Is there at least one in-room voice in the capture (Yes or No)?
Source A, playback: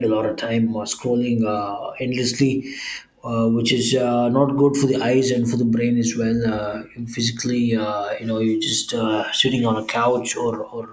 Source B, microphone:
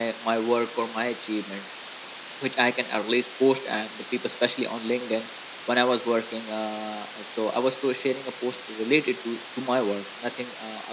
Yes